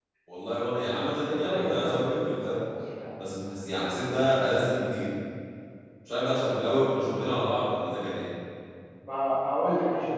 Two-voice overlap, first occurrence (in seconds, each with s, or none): 1.2 s